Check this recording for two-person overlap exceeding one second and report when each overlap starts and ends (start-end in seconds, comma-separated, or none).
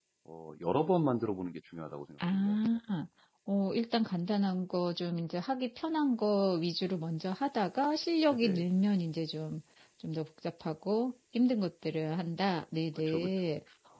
none